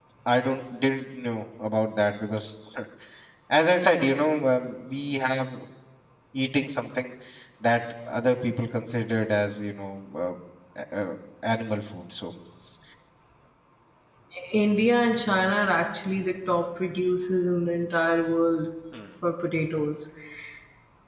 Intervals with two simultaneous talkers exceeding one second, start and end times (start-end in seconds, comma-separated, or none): none